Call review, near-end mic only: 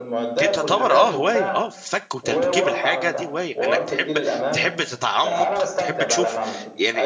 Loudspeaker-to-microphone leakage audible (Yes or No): Yes